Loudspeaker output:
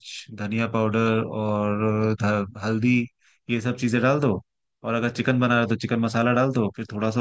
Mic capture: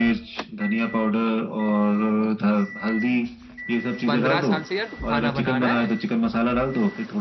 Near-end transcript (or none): पंद्रह साल से यार तू खाना बना रहा है